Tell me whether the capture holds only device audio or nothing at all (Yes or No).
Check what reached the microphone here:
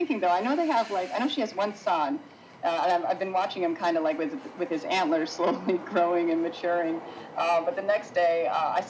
Yes